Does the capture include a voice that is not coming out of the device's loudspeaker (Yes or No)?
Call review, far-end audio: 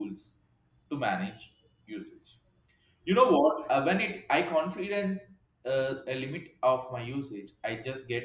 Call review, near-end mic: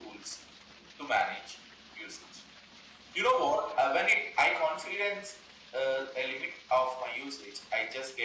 No